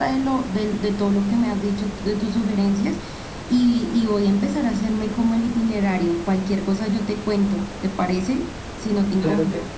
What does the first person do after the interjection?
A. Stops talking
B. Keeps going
A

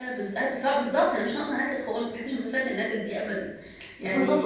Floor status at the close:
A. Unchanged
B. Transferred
B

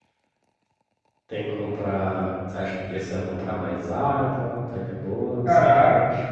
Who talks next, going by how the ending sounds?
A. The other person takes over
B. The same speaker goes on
A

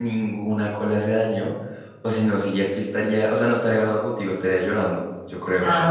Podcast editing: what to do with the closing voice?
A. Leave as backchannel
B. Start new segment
B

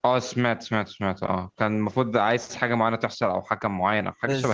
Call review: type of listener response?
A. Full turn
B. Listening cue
A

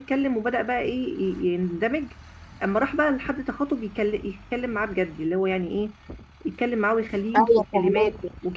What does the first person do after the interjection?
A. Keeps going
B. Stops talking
B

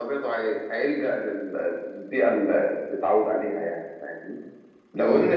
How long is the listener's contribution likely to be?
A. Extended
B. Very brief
B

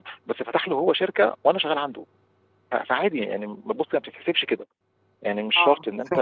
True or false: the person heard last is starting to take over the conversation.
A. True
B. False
B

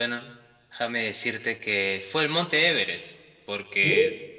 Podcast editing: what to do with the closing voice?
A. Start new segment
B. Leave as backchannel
B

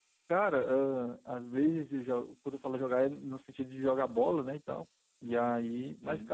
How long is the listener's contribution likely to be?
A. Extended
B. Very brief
B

